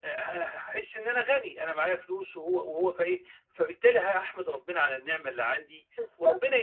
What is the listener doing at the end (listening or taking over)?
listening